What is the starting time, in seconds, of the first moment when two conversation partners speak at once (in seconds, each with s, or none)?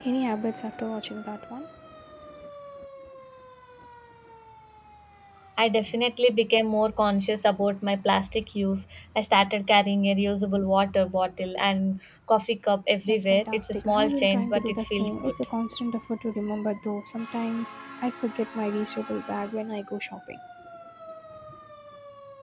13.1 s